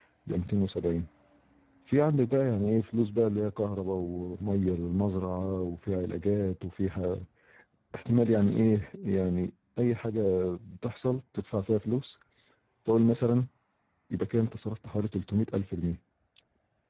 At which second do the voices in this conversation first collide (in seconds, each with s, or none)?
none